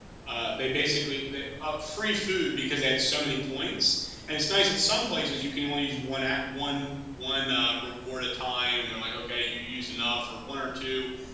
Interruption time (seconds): none

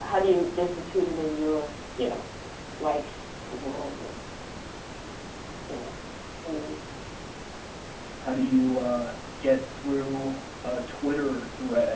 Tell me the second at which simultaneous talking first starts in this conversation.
none

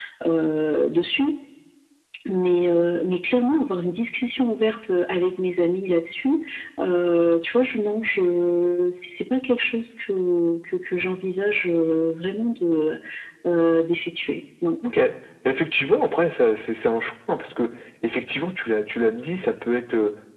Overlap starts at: none

